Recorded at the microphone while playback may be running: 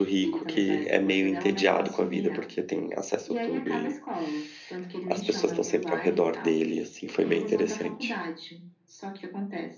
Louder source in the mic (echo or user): user